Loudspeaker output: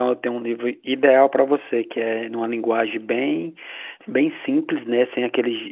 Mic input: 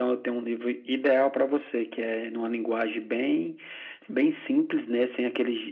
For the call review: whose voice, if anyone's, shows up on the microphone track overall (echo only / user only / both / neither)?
echo only